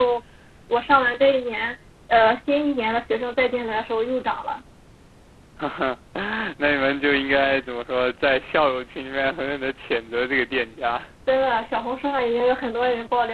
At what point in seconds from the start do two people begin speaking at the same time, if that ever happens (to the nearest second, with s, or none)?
none